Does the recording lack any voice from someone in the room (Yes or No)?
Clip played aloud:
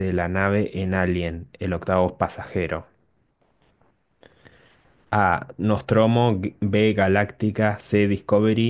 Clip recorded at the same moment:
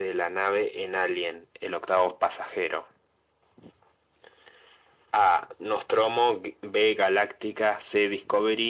Yes